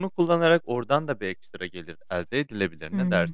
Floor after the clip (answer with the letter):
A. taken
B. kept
A